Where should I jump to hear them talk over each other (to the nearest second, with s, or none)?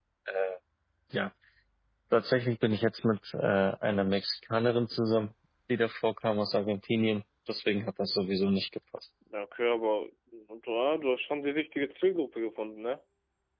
none